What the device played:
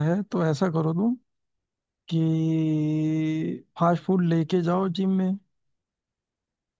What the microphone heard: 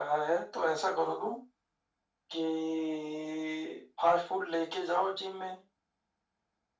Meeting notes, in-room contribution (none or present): none